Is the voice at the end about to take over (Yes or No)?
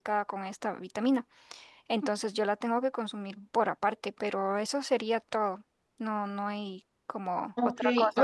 Yes